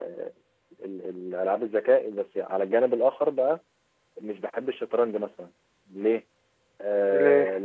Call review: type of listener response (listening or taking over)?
listening